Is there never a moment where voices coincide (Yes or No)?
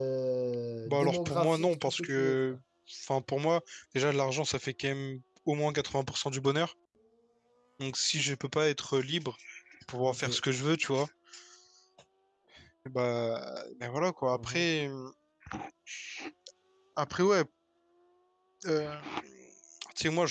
No